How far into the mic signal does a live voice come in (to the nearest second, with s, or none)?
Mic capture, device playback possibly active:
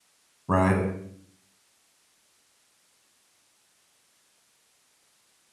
0 s